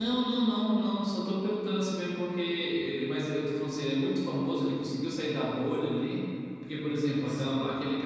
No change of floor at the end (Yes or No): Yes